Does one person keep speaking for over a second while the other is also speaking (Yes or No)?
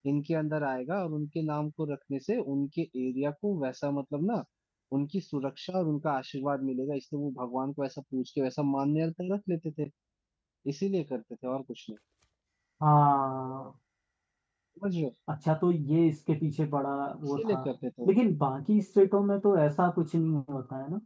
No